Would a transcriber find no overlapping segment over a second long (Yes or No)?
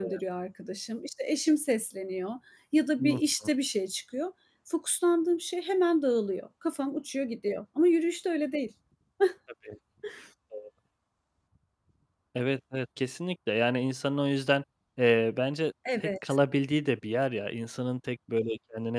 Yes